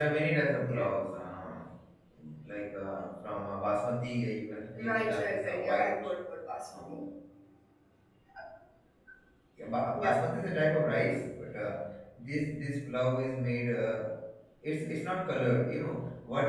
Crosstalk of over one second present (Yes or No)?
Yes